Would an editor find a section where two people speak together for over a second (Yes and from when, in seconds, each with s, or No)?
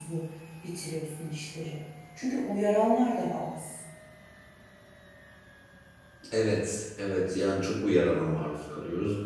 No